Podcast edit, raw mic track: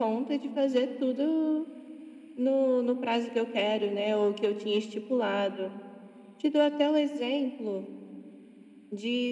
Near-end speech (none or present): none